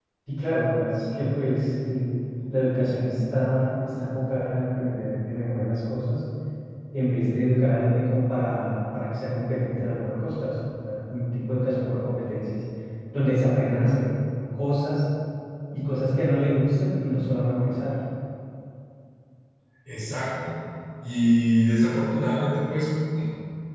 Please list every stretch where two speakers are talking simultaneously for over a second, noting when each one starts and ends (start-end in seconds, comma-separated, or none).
none